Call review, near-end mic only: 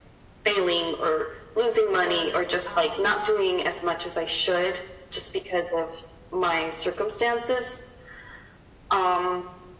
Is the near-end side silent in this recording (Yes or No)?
No